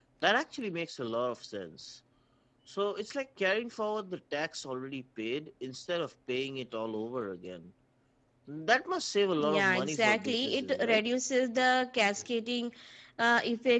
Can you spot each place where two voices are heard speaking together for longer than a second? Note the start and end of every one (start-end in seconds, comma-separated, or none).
9.4-11.0